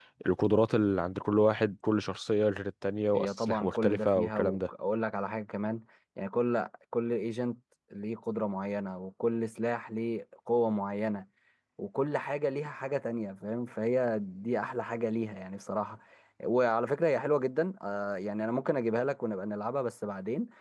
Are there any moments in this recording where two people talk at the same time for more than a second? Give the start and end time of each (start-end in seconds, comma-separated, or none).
3.1-4.7